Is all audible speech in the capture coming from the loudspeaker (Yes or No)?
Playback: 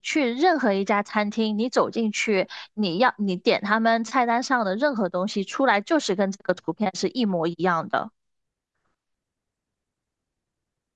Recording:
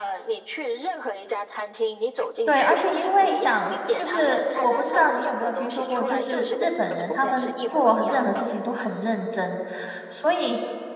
No